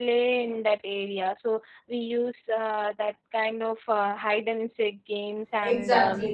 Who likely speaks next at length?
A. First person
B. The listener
B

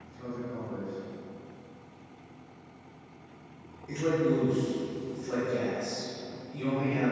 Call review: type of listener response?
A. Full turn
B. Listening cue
B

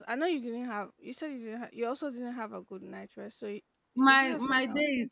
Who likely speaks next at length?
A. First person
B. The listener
B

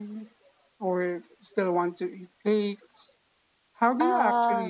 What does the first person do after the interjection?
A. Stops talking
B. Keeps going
B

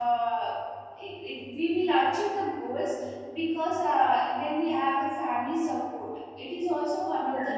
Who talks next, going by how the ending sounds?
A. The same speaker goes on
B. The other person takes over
B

